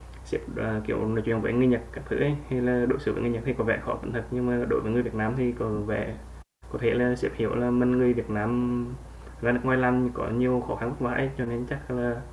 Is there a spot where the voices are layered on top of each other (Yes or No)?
No